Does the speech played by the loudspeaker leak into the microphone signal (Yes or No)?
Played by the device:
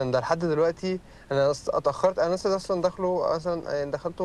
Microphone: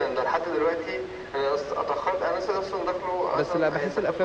Yes